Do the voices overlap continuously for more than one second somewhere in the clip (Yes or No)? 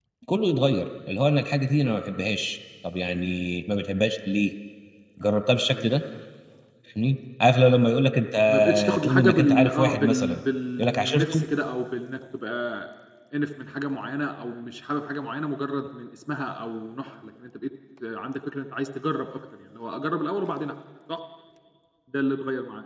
Yes